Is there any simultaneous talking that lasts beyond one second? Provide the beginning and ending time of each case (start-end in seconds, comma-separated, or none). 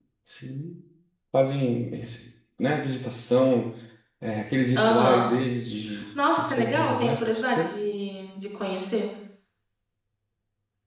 6.3-7.8